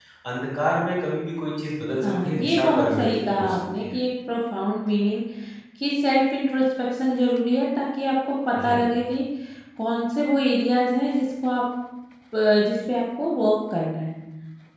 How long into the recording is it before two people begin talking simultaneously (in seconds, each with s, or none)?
2.0 s